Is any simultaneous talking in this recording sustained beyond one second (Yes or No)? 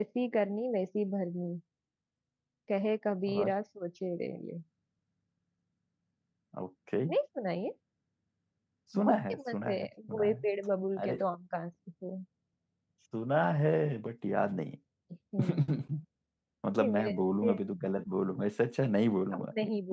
Yes